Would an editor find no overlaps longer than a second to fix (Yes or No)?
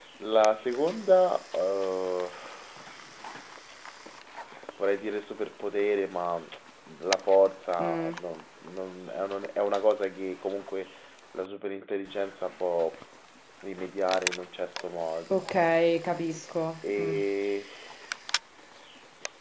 Yes